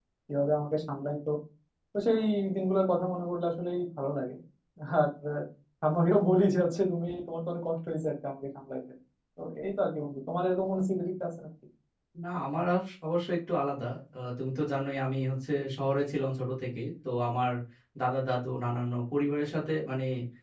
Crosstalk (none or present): none